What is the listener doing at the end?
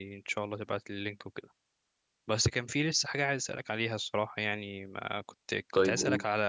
listening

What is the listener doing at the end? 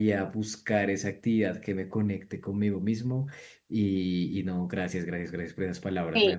taking over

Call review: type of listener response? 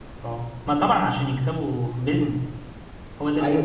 taking over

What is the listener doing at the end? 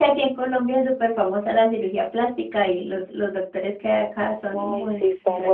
taking over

